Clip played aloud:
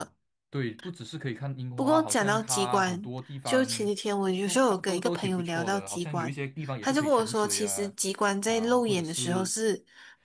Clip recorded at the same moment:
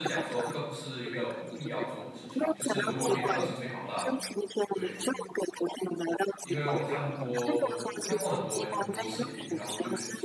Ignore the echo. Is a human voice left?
Yes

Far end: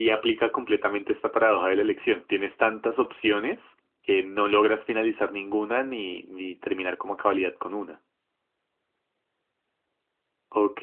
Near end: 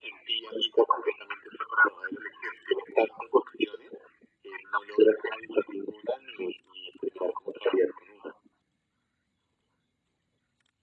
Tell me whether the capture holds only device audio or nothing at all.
Yes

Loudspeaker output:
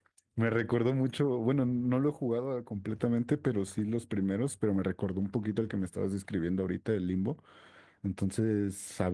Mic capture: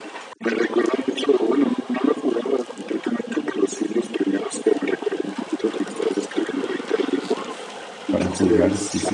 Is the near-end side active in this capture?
Yes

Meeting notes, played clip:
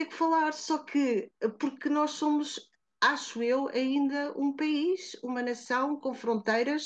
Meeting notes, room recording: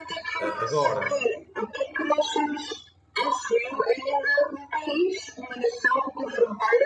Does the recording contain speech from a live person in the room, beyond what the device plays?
Yes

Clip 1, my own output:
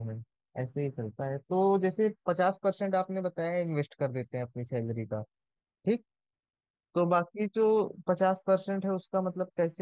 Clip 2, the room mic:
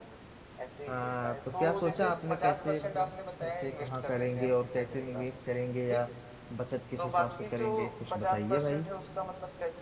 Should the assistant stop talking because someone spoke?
Yes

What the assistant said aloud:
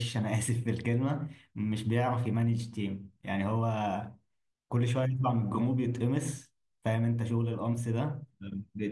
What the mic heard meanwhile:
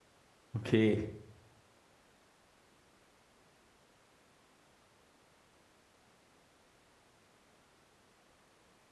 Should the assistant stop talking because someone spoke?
Yes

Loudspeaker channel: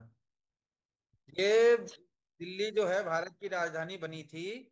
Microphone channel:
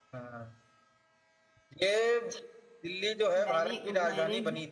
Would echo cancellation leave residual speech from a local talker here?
Yes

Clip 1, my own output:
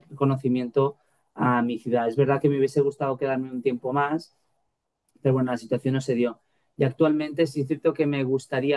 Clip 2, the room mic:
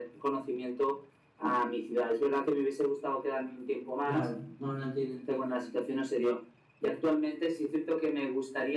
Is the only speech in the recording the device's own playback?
No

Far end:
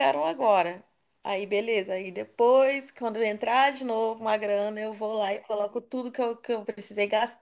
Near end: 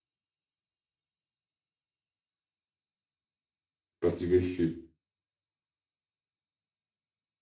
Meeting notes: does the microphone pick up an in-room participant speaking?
Yes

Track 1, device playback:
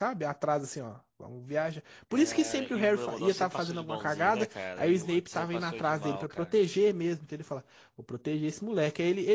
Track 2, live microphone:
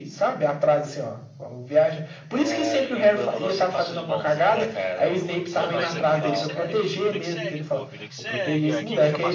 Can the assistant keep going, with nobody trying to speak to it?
No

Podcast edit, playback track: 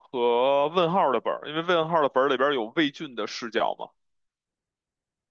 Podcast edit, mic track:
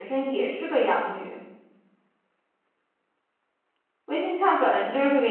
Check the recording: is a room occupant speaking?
Yes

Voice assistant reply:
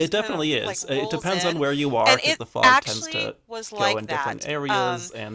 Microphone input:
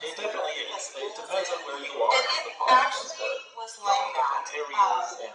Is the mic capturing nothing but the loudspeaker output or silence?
Yes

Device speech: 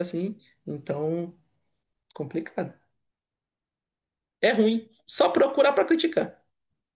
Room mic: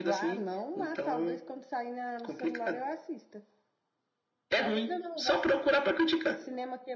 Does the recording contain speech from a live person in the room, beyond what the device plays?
Yes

